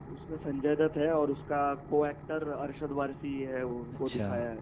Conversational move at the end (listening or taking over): taking over